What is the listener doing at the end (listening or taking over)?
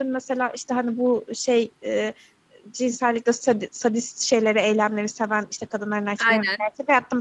listening